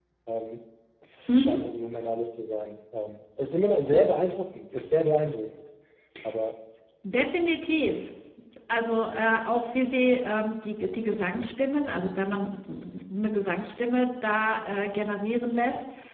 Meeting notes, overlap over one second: none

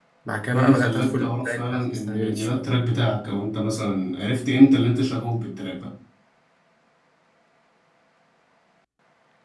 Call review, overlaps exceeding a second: present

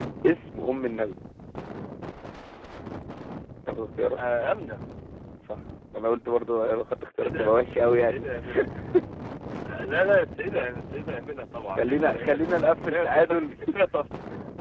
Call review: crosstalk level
present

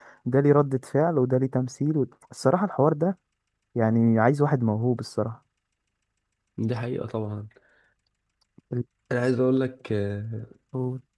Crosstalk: none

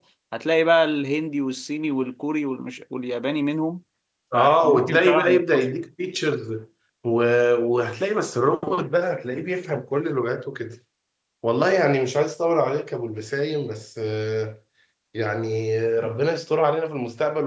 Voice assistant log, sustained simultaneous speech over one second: present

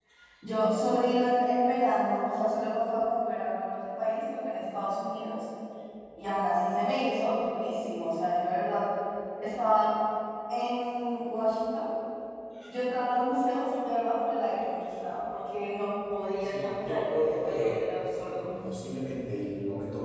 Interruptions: present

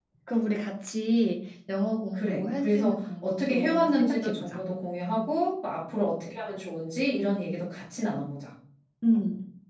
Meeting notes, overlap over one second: present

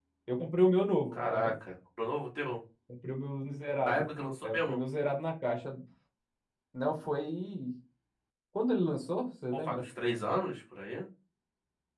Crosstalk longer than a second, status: none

